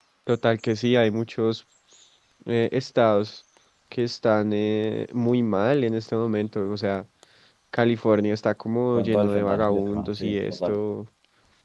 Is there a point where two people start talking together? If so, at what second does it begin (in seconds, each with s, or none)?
8.9 s